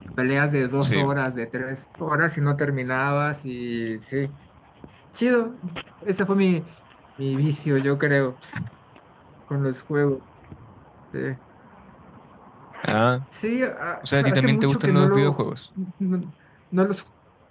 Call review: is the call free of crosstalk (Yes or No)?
No